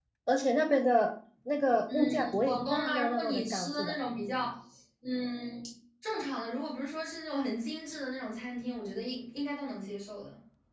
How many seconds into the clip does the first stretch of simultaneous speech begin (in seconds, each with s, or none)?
1.9 s